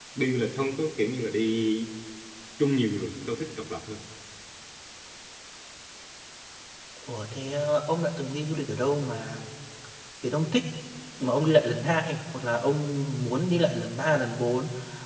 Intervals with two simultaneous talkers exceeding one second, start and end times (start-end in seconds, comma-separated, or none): none